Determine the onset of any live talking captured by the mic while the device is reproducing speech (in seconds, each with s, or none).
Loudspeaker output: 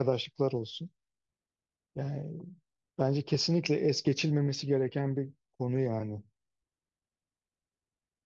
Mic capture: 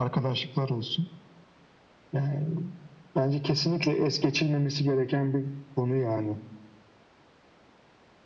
none